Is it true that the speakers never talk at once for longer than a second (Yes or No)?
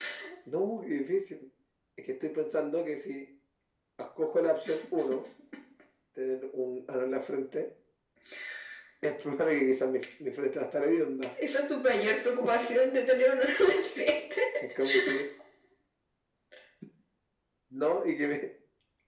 Yes